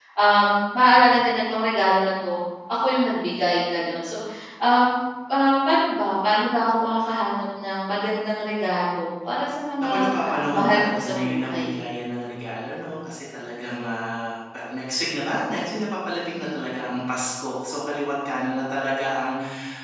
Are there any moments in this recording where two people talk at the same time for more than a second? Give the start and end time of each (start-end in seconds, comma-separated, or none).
9.8-11.7